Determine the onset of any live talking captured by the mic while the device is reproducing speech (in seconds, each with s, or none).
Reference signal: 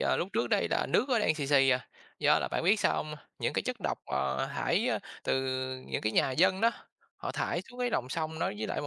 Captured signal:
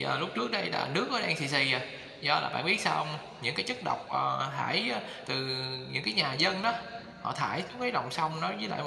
none